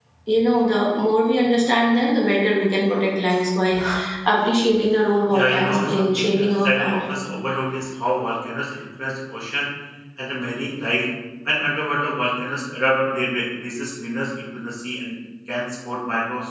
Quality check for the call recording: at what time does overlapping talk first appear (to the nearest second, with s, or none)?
5 s